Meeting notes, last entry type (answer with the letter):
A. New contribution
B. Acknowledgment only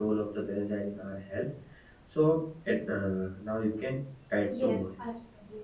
A